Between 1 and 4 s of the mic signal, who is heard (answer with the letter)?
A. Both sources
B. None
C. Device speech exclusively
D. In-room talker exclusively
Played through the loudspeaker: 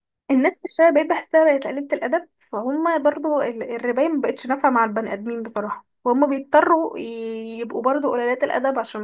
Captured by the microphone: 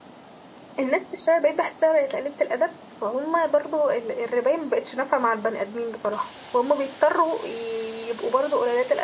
C